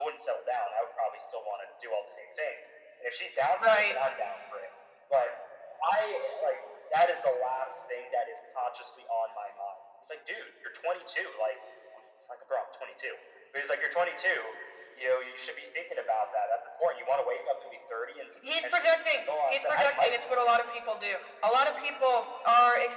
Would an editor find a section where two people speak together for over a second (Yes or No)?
Yes